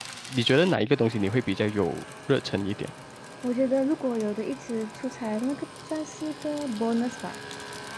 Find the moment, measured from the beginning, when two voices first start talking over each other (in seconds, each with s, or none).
none